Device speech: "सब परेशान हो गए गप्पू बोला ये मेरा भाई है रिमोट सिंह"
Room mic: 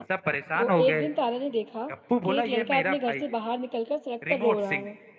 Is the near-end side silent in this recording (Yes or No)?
No